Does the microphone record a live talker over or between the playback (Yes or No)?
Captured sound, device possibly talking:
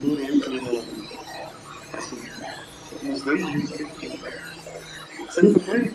No